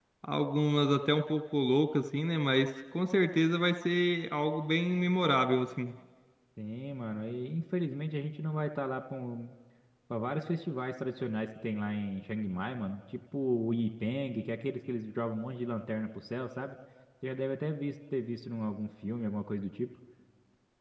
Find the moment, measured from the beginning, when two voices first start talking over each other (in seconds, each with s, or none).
none